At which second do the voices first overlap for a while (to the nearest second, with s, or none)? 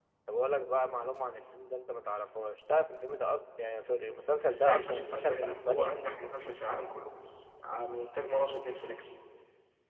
4 s